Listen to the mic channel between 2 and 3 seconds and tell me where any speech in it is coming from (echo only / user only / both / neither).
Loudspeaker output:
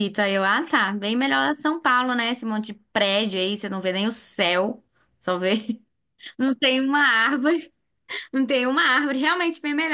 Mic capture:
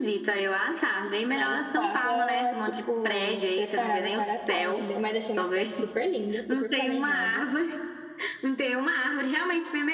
both